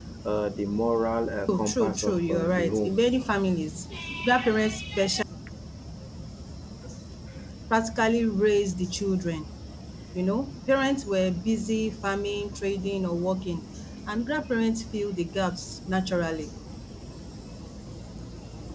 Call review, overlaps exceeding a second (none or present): present